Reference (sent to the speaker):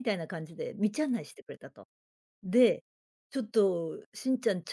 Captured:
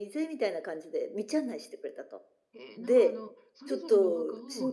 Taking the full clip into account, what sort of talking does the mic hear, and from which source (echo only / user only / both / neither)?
both